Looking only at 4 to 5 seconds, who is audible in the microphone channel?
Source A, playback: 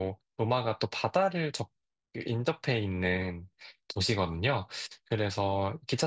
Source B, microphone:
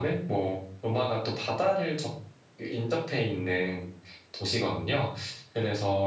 echo only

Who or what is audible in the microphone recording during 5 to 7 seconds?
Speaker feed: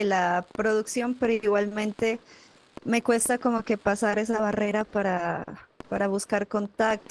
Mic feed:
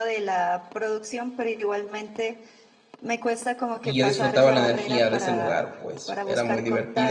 both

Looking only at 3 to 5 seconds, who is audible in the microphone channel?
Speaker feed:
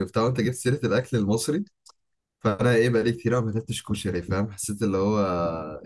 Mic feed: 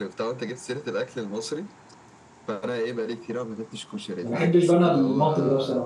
both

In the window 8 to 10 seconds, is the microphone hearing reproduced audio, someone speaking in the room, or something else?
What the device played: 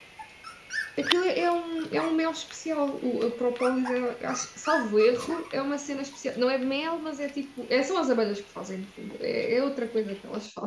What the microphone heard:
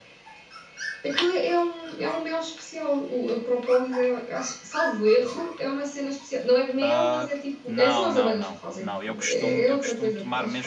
both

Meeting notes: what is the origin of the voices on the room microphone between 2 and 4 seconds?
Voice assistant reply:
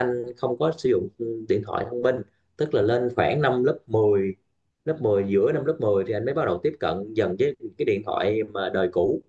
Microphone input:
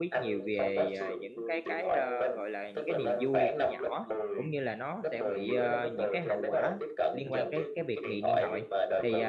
both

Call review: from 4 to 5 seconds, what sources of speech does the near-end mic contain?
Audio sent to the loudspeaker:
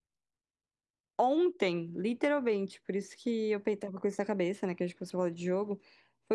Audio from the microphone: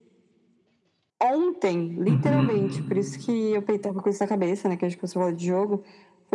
echo only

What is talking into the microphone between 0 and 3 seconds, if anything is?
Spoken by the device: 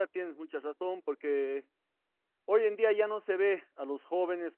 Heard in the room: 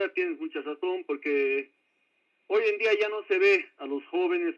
echo only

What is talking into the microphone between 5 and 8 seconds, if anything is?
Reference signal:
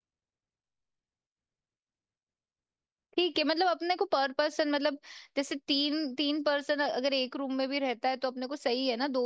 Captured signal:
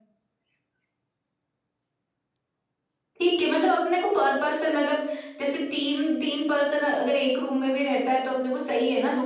echo only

